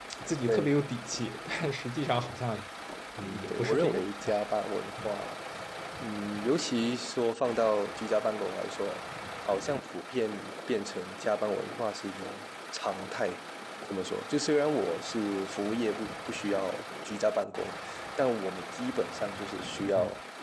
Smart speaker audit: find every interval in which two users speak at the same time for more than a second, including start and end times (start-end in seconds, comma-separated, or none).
3.2-4.5